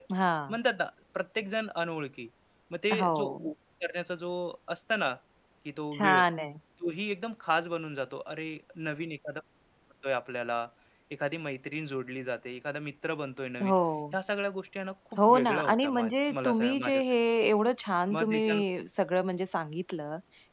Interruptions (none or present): present